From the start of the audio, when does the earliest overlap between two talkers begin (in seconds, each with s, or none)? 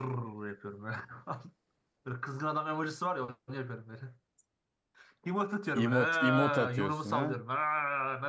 5.7 s